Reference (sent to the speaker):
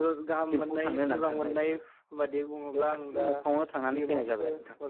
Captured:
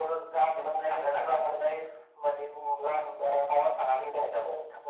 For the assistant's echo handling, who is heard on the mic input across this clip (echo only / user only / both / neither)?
echo only